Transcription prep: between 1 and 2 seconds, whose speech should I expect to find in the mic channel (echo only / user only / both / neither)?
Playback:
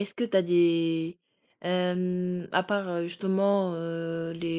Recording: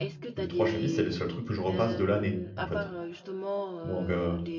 both